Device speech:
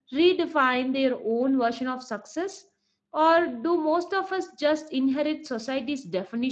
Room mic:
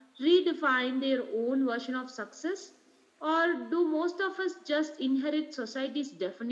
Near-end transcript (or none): none